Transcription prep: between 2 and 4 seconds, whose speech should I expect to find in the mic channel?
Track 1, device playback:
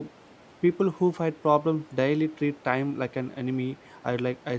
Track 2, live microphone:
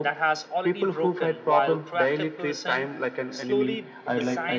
both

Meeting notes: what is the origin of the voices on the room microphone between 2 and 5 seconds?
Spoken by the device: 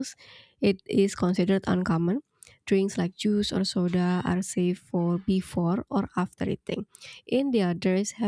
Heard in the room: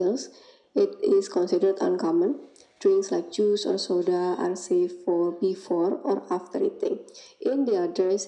echo only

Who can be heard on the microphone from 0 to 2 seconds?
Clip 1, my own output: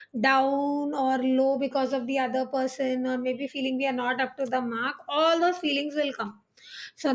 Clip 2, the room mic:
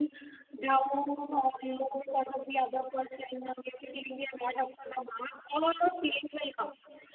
echo only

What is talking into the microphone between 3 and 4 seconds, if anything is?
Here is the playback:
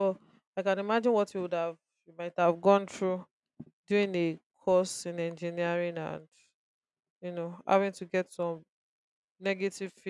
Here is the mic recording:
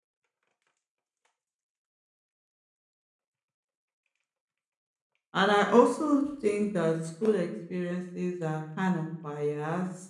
neither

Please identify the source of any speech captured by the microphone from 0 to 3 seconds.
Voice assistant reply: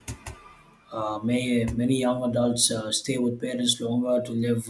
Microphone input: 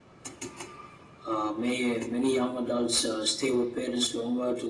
echo only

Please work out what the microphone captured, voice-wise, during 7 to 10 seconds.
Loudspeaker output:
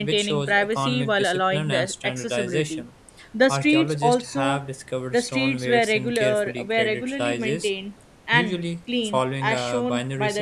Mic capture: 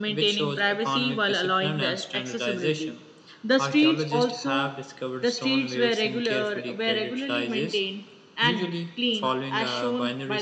echo only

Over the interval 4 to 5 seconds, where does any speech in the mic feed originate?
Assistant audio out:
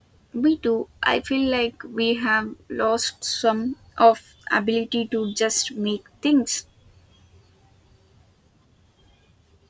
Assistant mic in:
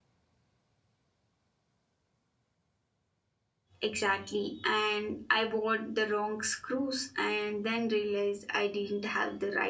user only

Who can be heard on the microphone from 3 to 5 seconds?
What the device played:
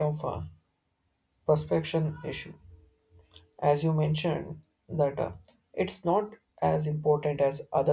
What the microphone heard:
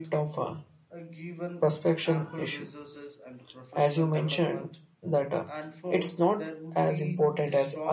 both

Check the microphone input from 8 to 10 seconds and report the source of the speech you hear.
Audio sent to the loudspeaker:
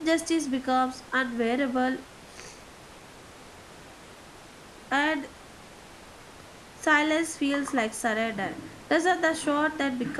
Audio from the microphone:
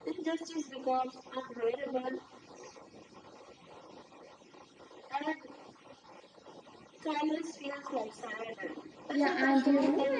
both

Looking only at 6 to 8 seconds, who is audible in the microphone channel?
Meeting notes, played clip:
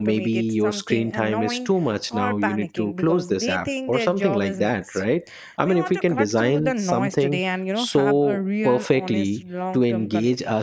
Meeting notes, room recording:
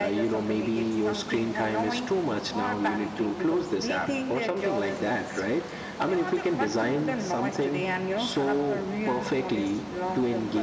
echo only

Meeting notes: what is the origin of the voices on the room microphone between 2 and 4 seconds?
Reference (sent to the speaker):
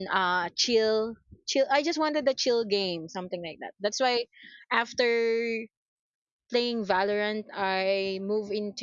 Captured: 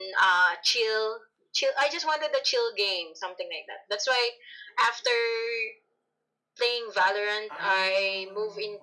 echo only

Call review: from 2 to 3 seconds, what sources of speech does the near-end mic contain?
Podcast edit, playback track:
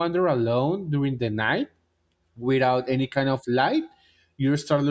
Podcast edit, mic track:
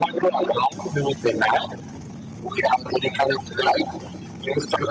echo only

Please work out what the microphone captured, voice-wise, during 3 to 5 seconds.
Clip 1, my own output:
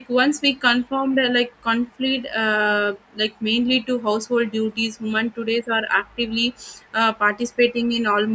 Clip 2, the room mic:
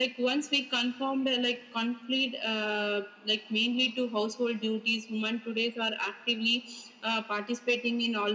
echo only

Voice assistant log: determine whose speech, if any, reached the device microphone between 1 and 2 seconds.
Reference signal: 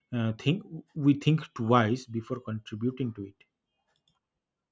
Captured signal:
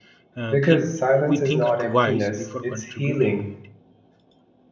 both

